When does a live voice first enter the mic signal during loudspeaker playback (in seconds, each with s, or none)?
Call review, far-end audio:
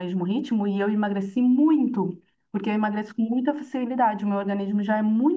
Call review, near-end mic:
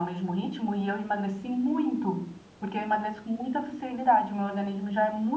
none